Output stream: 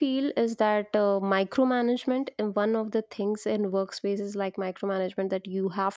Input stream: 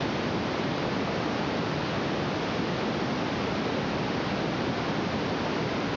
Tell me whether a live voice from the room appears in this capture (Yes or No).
No